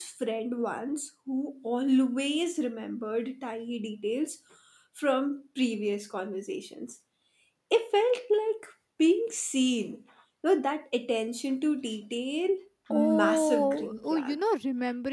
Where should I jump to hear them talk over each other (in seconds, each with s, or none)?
12.9 s